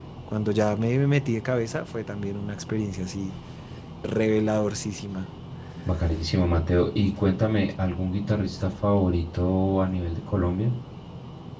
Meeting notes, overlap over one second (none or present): none